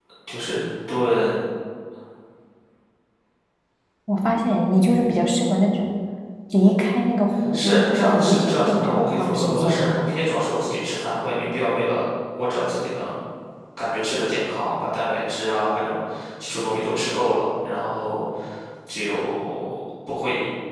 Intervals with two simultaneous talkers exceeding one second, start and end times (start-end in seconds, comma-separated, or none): 7.5-9.9